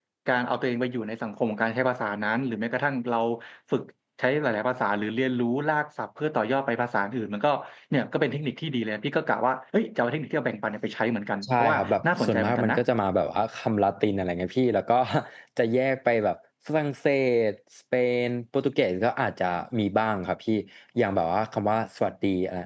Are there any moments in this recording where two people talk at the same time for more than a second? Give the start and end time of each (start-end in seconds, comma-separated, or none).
11.4-12.8